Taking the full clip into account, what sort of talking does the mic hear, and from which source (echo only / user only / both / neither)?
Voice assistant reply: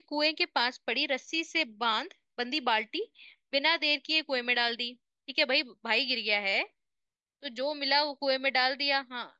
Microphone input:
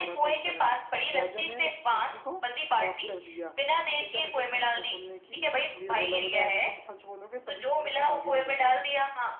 both